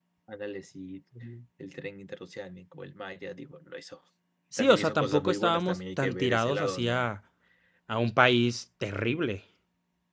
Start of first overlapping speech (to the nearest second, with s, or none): 5 s